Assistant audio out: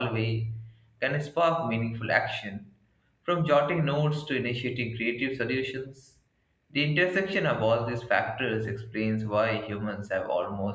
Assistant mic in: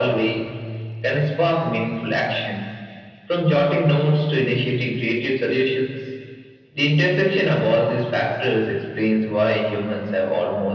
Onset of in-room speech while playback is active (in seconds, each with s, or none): none